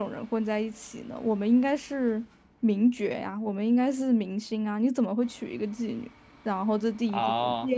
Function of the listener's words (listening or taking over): listening